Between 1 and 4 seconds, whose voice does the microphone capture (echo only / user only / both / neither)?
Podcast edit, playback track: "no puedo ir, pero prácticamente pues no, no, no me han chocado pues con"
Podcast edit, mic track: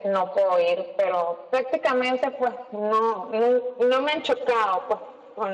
echo only